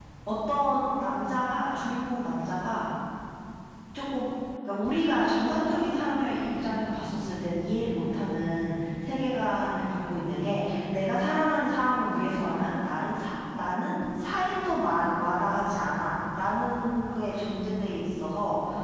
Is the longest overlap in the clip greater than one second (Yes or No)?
No